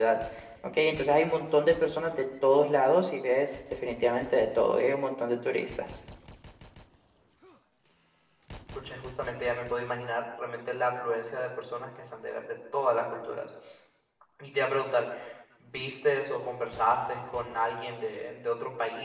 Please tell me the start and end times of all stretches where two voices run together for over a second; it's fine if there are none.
none

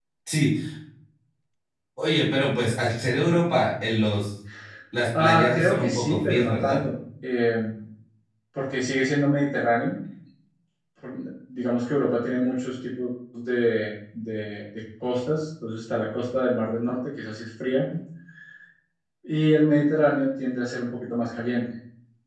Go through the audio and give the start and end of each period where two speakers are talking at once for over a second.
5.2-6.8

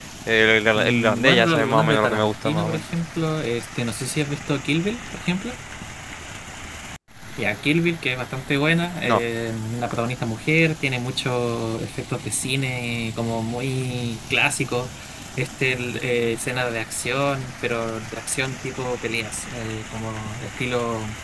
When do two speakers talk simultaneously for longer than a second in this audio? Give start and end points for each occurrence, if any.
0.8-2.8

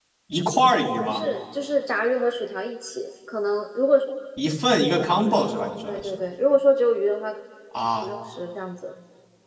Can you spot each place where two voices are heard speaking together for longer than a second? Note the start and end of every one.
none

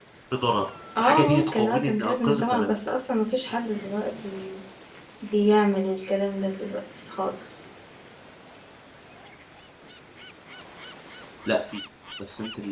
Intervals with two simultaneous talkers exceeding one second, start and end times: 1.0-2.8

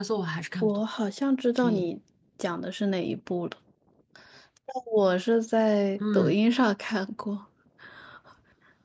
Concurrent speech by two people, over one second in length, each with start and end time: none

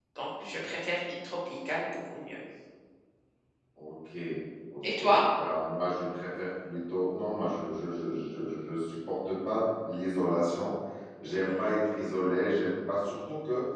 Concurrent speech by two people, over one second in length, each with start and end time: none

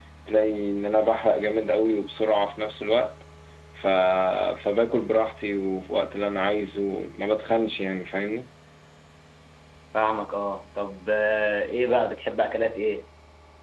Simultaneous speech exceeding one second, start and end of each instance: none

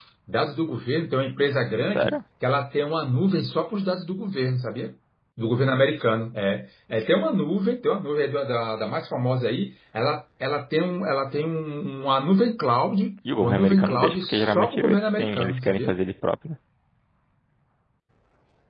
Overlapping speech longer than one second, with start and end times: 13.4-15.9

